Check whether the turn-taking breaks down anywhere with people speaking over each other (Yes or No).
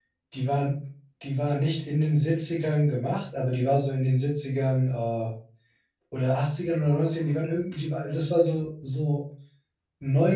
No